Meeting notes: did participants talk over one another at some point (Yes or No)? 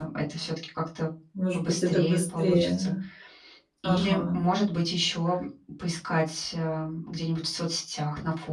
Yes